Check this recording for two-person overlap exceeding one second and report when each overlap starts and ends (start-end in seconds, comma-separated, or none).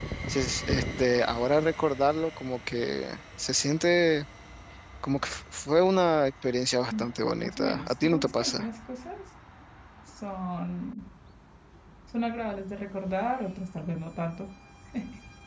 7.4-8.7